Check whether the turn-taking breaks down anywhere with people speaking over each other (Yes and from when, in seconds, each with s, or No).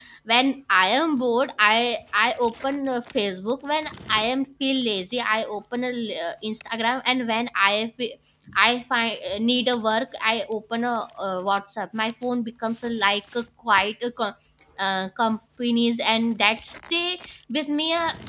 No